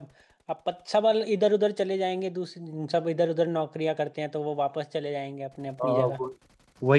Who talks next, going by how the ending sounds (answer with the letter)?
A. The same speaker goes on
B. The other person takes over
B